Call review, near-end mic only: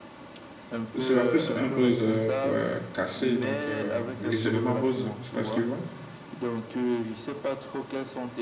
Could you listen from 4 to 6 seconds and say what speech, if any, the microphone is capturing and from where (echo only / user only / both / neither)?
both